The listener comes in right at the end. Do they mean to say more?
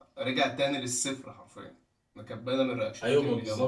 Yes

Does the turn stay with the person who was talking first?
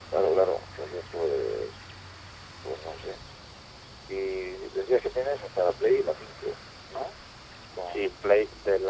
No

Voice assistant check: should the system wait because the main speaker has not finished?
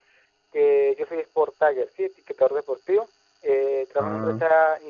Yes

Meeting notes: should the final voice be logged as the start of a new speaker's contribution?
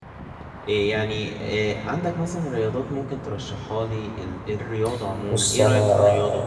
Yes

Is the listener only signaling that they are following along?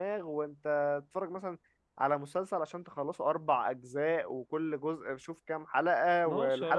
No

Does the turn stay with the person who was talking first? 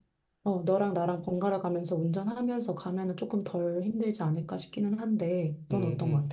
No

